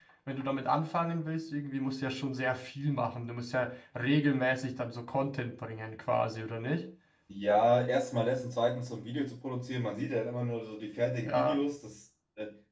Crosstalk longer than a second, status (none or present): none